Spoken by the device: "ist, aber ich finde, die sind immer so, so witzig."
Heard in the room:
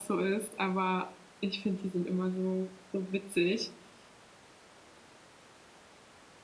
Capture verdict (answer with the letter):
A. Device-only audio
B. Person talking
A